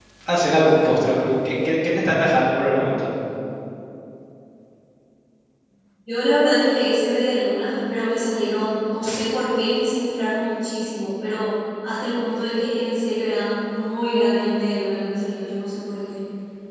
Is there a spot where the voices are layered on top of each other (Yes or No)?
No